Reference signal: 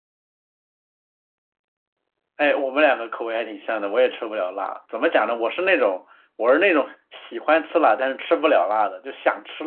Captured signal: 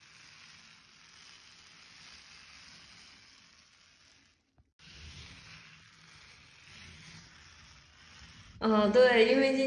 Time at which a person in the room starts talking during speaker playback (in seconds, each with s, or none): 8.6 s